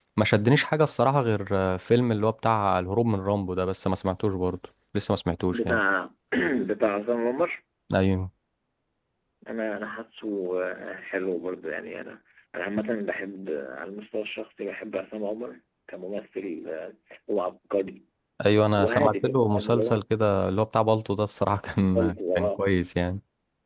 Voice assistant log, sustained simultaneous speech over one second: present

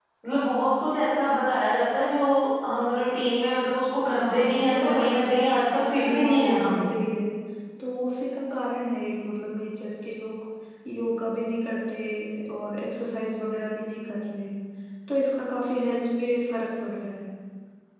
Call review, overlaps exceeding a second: present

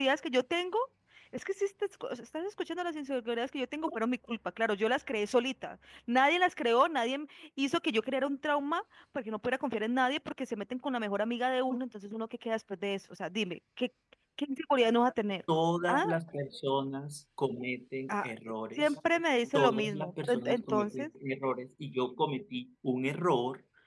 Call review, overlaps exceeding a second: present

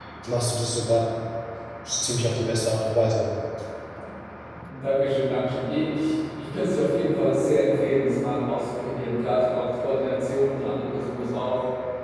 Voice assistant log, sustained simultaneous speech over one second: none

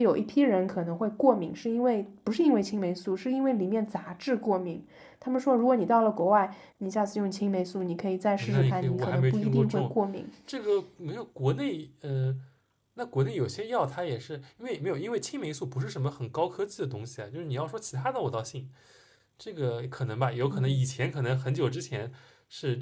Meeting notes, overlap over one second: present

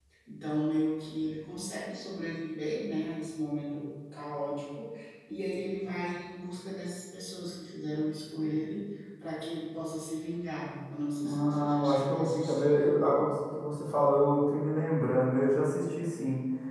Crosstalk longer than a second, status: present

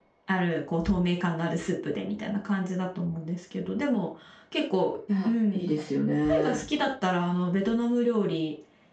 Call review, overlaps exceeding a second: none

